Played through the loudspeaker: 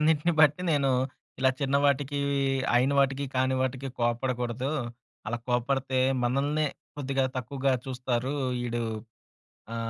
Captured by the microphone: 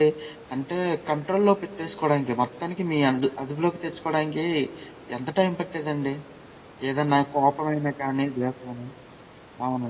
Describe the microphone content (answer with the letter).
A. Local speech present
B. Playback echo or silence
A